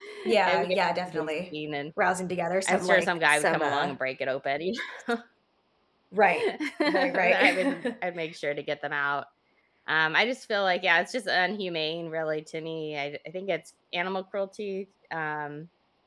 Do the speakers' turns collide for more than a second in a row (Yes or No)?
Yes